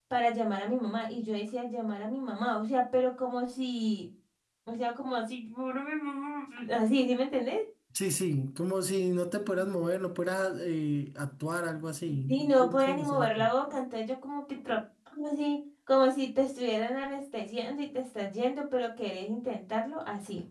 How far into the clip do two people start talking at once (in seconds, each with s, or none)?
12.1 s